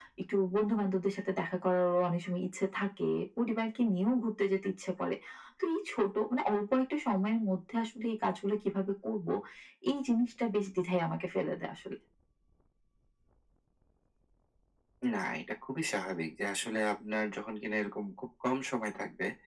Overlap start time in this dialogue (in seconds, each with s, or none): none